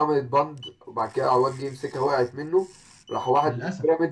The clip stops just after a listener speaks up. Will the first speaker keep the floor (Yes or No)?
Yes